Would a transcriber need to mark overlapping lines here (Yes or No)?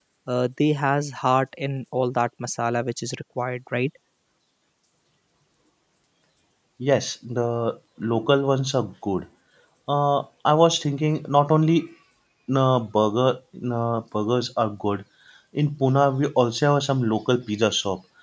No